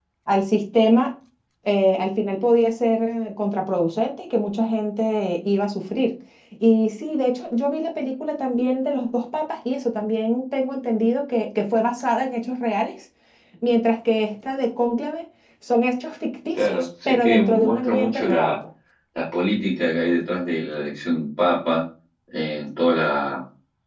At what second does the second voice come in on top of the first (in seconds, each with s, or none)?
16.6 s